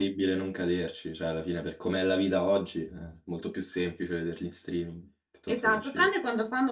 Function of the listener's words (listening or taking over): taking over